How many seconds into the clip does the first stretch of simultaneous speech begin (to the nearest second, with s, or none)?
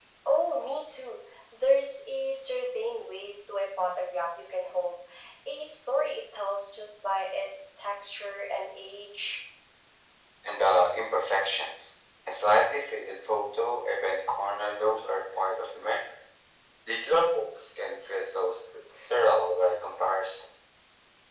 none